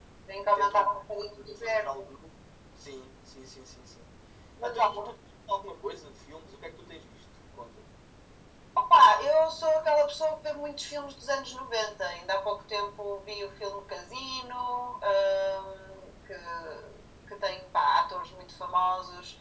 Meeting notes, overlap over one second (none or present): present